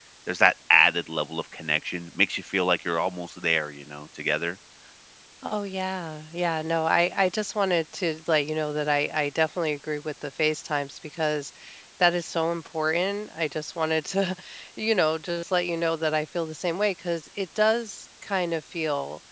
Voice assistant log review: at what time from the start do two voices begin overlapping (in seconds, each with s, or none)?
none